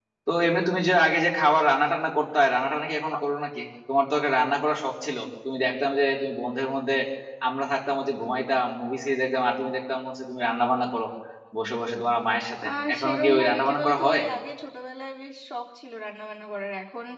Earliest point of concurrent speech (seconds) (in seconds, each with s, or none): 12.6 s